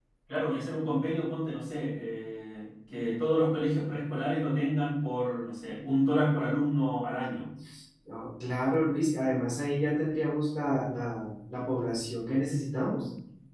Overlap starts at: none

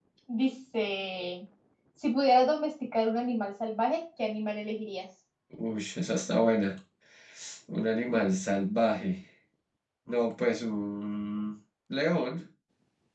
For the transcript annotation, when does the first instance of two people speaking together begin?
none

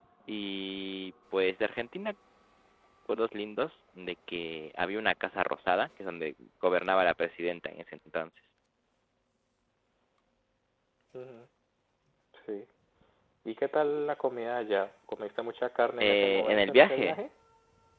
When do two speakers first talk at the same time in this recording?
16.0 s

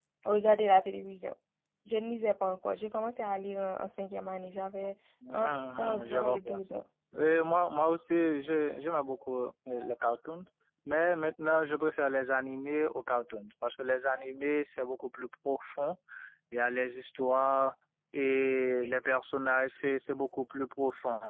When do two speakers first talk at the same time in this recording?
5.2 s

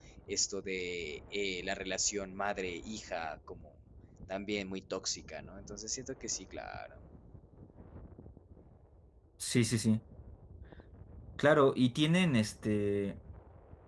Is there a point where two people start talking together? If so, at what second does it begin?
none

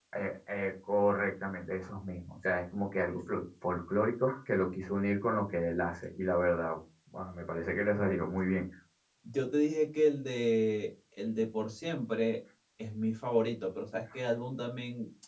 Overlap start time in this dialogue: none

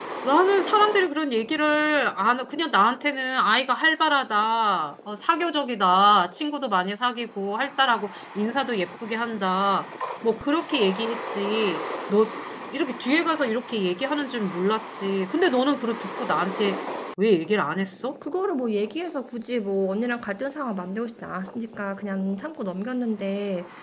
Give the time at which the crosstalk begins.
none

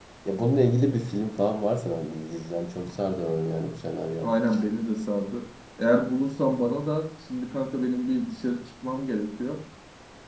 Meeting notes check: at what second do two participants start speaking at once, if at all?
none

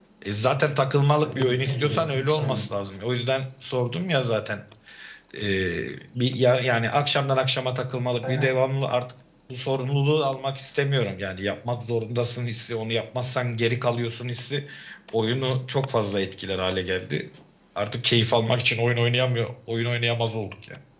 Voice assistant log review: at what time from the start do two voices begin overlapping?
1.2 s

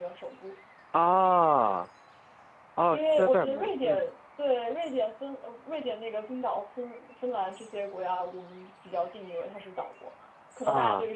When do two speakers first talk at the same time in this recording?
2.9 s

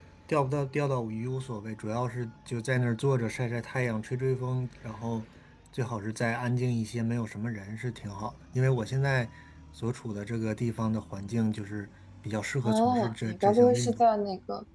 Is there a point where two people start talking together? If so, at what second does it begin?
12.6 s

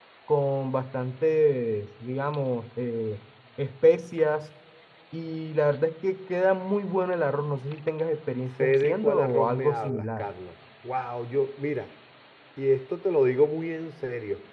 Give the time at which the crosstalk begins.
8.6 s

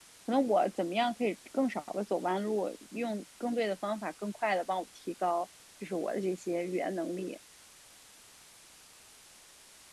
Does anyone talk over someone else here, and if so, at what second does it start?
none

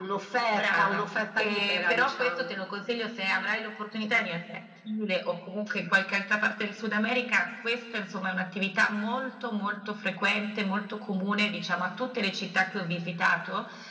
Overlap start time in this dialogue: 0.5 s

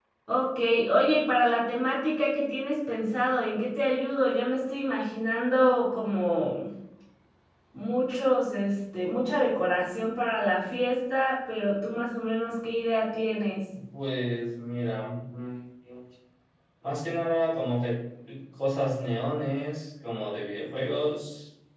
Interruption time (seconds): none

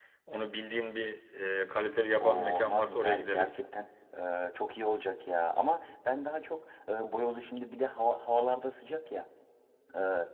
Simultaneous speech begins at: 2.2 s

